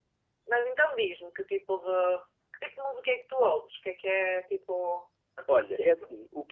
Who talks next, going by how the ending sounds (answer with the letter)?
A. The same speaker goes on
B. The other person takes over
B